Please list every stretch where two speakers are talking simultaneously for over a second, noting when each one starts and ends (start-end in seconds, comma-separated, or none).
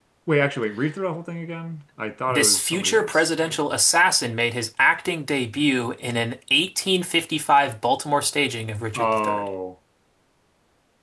2.3-3.6